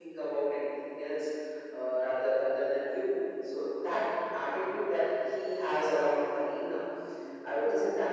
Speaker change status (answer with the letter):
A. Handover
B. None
B